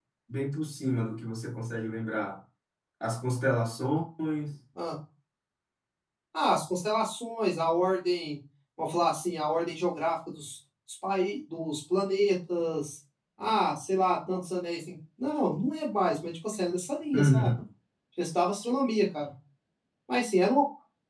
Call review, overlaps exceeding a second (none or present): none